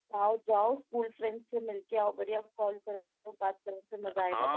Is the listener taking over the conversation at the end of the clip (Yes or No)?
Yes